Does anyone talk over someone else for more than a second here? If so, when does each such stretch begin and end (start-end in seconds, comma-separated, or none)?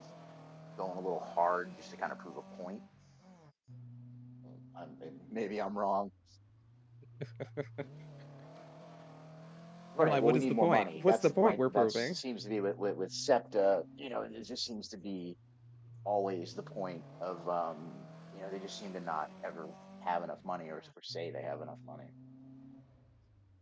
10.0-12.2